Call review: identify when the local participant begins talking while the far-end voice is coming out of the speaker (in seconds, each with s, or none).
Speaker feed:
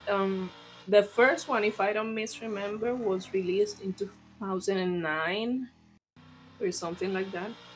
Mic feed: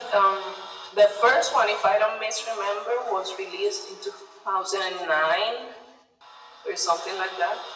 none